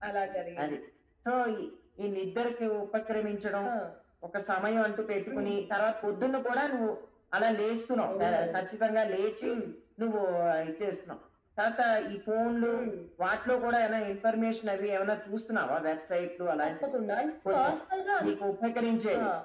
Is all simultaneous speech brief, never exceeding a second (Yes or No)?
Yes